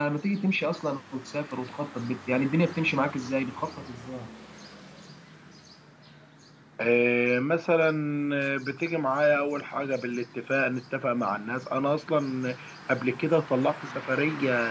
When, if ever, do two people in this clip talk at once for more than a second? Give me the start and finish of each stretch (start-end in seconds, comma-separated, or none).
none